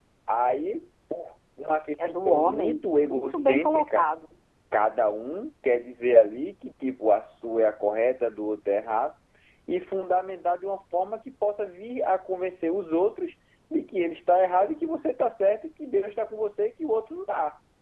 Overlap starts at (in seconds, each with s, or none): 2.2 s